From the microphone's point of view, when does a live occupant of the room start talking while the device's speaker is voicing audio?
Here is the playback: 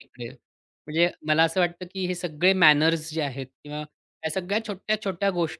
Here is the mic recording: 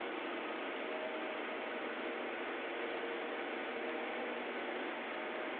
none

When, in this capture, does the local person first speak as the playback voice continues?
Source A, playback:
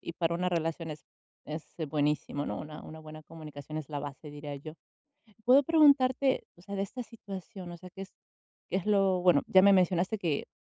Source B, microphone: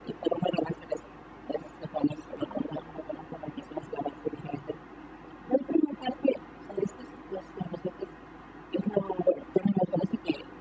none

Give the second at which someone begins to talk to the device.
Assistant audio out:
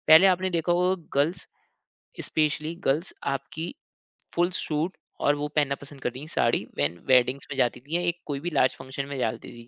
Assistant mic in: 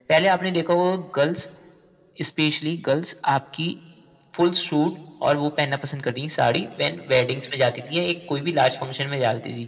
none

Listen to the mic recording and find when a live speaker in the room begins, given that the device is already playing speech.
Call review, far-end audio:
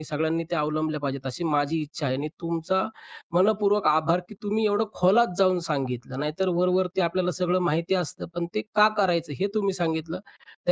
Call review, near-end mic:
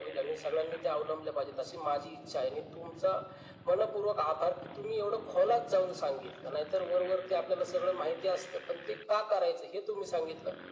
none

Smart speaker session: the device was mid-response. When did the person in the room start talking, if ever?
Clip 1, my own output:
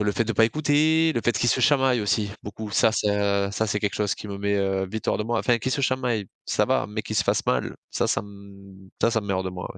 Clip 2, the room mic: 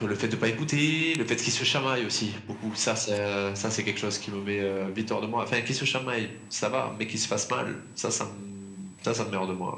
none

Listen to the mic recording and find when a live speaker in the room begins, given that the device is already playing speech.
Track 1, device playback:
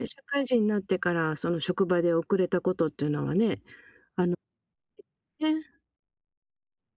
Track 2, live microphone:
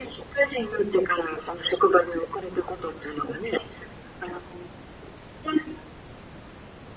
none

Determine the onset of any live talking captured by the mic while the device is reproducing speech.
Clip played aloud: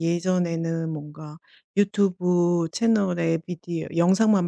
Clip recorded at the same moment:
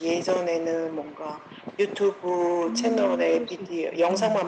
2.7 s

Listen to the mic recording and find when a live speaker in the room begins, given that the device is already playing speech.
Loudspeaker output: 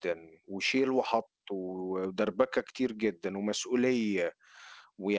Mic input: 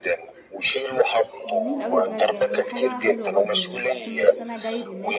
1.4 s

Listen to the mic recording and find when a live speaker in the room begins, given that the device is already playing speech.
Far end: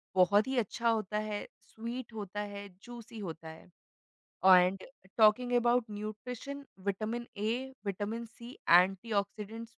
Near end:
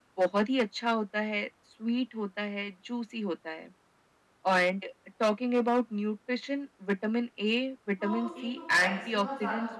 8.0 s

